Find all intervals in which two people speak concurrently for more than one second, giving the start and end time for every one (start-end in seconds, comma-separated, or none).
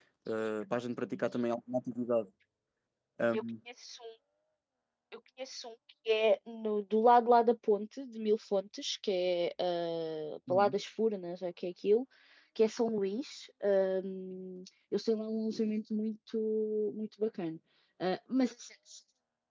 none